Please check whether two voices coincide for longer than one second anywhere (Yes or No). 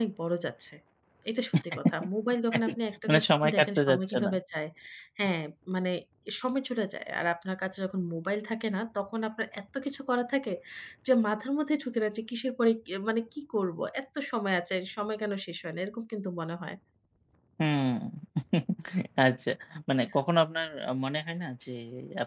Yes